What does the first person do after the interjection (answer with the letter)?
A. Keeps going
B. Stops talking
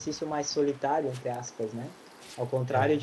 A